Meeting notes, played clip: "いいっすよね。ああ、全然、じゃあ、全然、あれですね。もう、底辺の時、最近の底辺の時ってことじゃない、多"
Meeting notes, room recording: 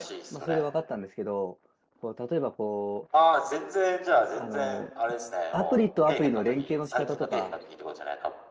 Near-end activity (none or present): present